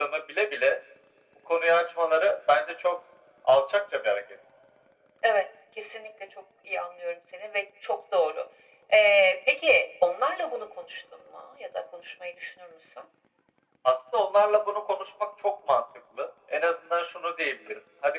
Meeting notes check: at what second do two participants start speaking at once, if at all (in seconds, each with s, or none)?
none